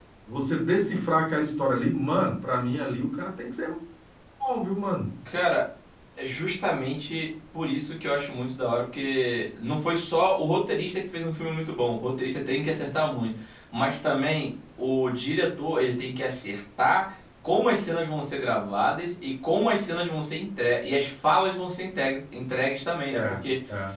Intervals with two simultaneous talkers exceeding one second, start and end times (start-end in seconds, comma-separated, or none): none